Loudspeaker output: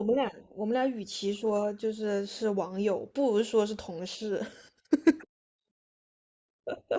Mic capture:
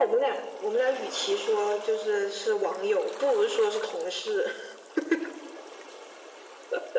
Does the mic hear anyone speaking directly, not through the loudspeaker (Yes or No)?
No